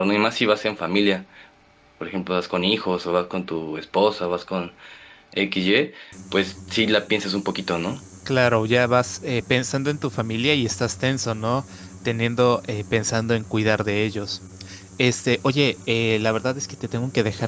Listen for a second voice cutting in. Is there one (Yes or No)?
No